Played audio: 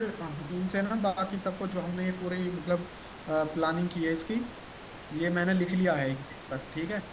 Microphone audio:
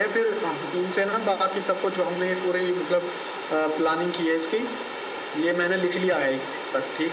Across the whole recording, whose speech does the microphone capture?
echo only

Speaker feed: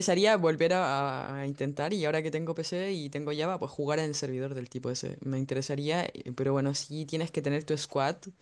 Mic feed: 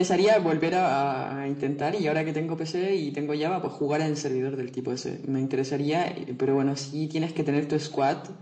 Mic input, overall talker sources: echo only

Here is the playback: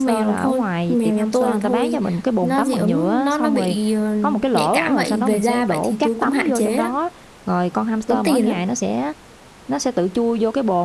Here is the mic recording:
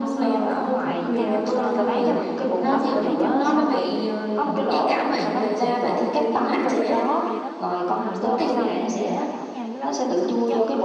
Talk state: both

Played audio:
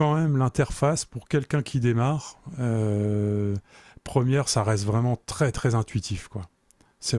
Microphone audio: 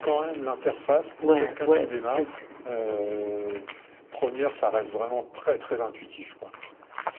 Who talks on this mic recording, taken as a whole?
both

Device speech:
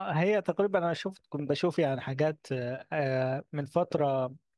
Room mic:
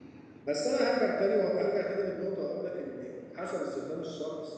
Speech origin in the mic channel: user only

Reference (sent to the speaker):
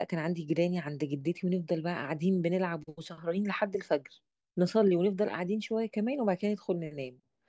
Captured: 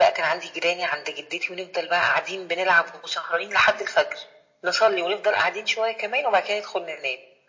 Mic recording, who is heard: echo only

